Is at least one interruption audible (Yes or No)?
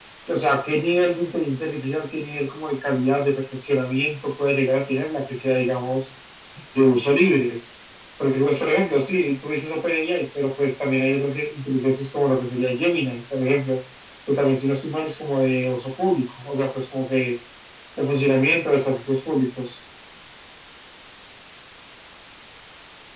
No